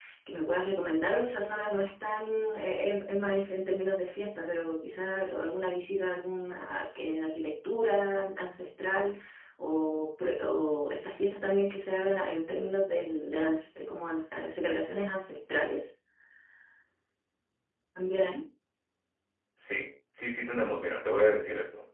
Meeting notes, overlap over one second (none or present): none